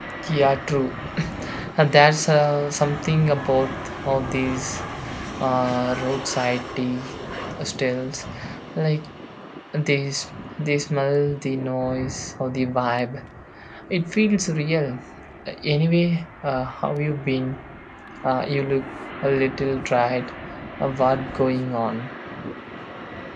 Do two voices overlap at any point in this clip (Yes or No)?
No